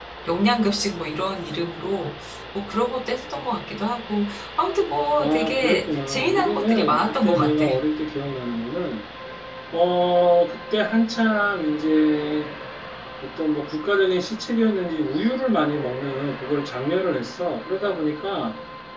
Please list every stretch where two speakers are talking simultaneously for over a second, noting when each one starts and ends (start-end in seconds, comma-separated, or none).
5.2-7.7